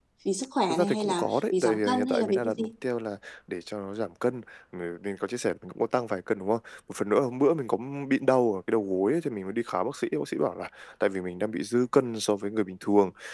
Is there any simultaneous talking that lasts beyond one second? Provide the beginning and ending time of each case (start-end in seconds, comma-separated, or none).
0.7-2.7